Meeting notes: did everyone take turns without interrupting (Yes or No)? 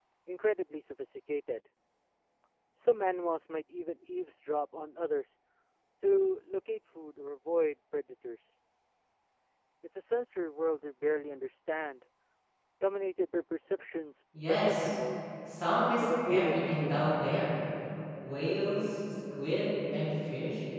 No